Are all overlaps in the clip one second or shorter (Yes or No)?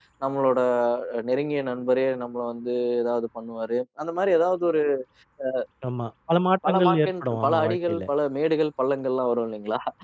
No